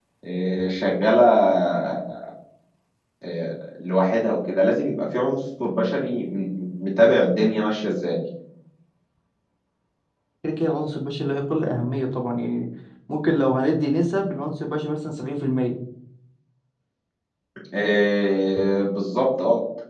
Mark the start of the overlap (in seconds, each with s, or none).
none